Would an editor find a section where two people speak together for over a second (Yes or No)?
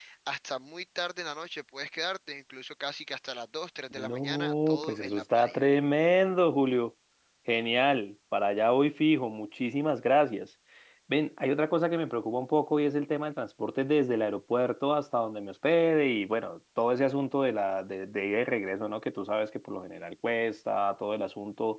Yes